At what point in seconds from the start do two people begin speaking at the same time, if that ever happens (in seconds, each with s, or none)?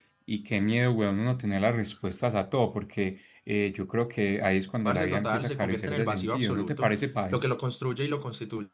4.8 s